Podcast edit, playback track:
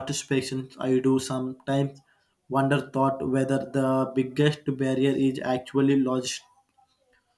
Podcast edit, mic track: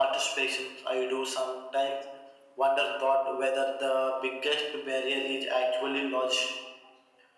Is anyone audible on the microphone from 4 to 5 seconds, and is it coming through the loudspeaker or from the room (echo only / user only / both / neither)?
echo only